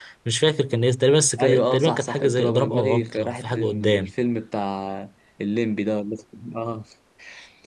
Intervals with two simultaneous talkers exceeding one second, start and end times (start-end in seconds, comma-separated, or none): 1.4-4.1